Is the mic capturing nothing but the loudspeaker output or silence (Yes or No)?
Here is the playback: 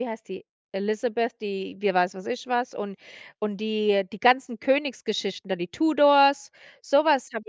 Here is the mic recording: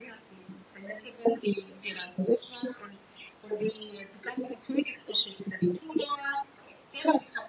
Yes